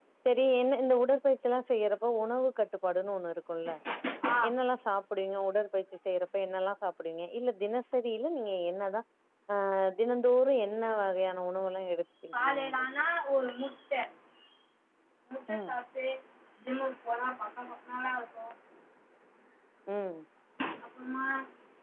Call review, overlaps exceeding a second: none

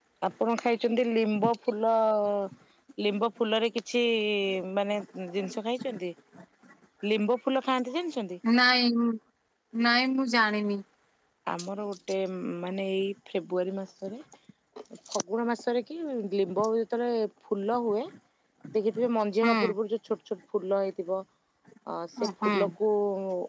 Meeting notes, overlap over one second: none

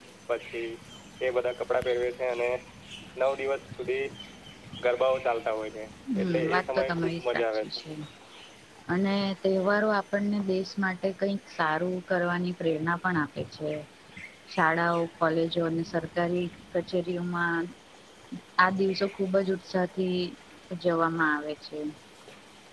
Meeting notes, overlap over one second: present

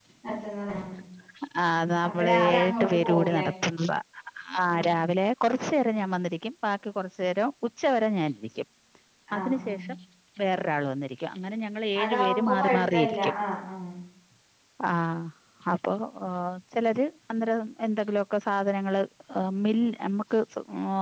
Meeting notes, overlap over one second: present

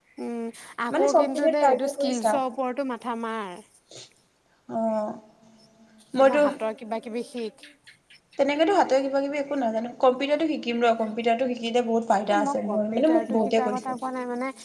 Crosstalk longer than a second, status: present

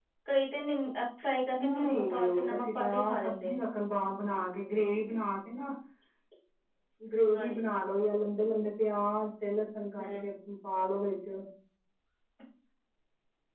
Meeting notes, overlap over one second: present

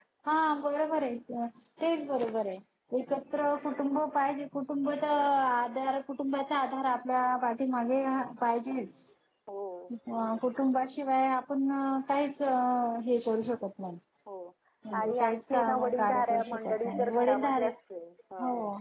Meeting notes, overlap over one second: present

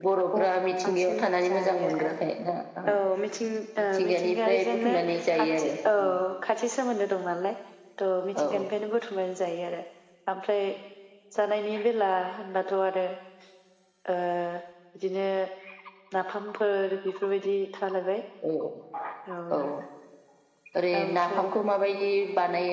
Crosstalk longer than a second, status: present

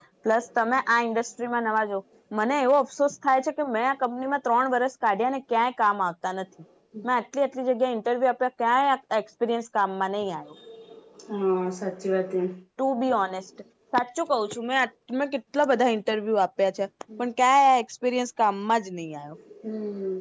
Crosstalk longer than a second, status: none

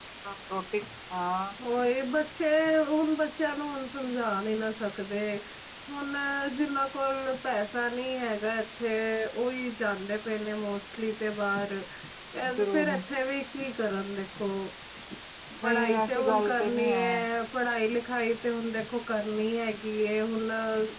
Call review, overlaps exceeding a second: present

